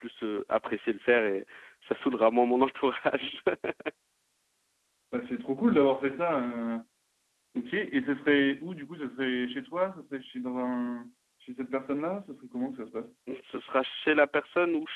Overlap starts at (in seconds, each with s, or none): none